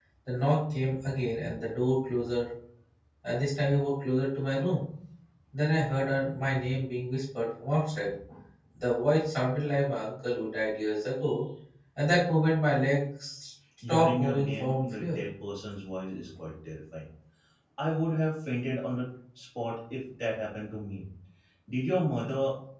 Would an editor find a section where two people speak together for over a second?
Yes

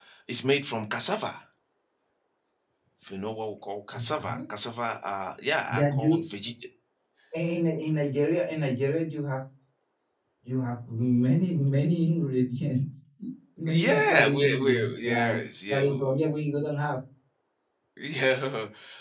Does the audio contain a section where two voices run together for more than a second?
Yes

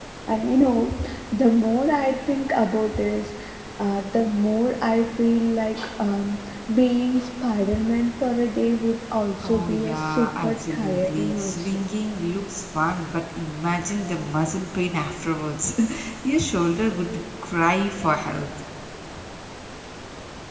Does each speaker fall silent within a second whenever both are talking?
No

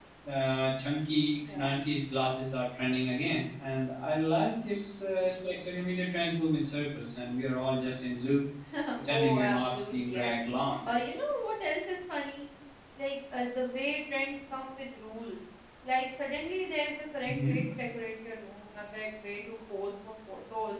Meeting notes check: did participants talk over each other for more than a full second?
Yes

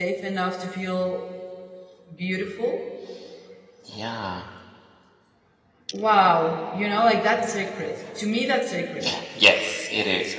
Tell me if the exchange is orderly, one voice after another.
Yes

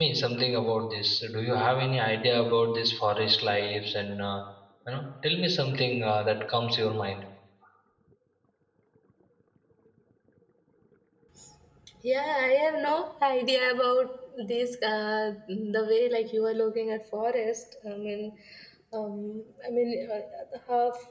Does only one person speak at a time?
Yes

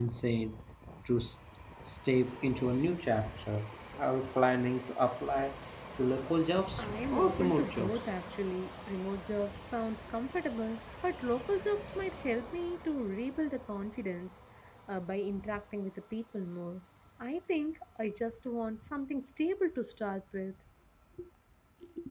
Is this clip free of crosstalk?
No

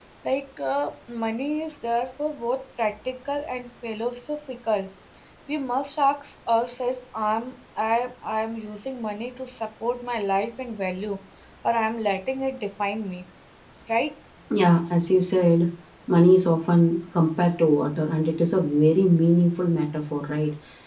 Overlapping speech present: No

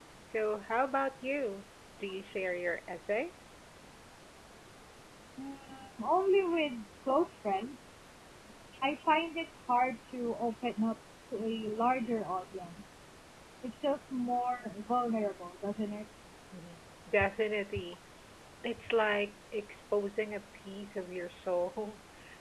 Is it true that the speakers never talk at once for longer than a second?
Yes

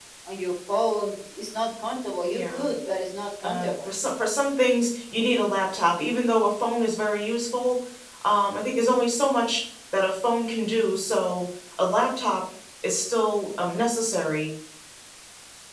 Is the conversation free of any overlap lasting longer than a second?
Yes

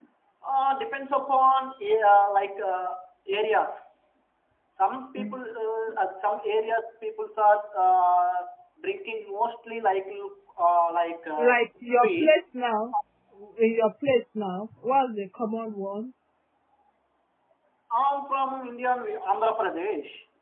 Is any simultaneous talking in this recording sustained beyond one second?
No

